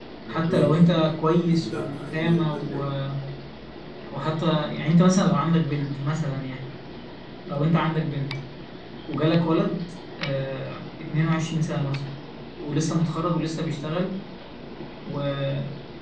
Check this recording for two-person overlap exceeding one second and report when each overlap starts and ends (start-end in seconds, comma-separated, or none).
1.6-2.9